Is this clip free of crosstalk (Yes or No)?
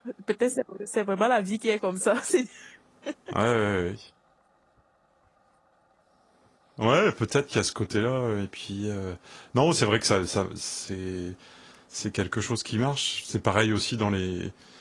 Yes